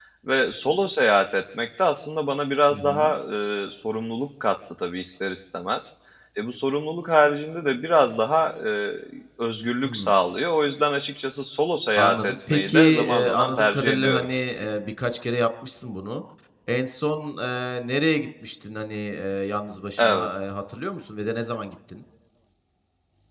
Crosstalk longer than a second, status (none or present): present